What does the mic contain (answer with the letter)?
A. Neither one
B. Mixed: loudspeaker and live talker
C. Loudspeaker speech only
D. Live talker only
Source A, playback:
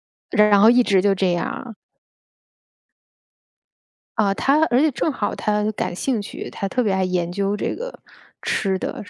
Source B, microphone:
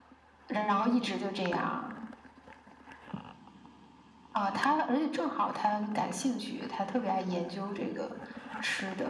C